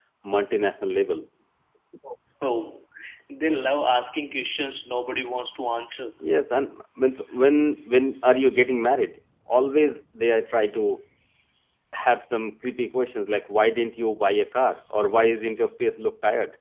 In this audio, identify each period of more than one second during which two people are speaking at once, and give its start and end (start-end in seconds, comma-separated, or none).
none